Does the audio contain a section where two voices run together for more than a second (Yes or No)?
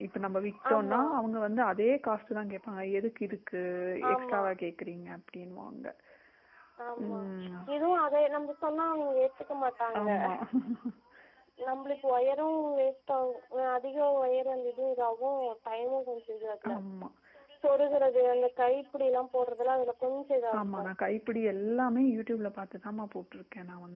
No